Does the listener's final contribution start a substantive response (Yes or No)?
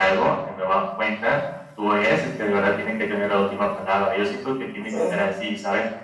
No